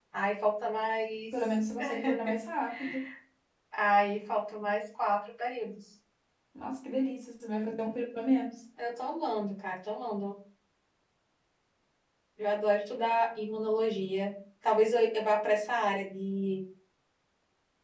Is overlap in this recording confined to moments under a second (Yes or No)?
Yes